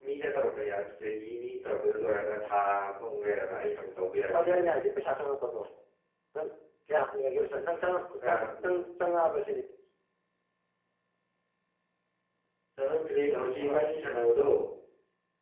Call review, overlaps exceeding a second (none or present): none